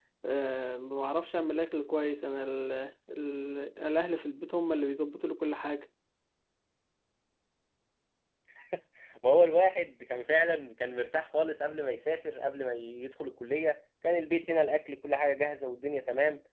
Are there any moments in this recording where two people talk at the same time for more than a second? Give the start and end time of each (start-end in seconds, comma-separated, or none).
none